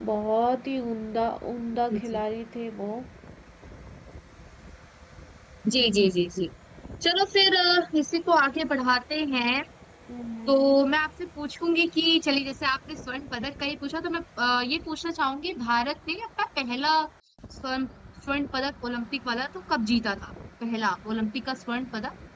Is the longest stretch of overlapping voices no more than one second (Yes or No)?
Yes